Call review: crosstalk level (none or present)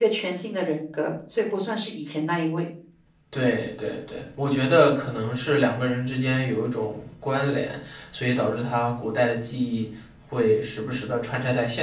none